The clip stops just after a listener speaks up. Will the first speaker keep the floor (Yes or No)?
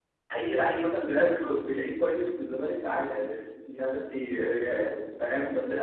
Yes